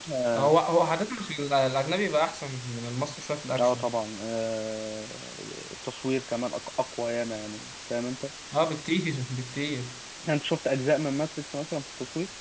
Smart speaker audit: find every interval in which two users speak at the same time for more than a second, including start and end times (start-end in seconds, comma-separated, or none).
none